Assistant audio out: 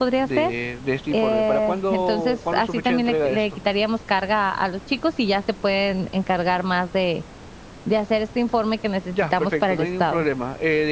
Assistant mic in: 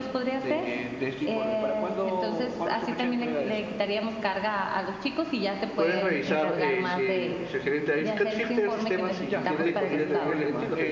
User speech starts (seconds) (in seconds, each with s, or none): 5.8 s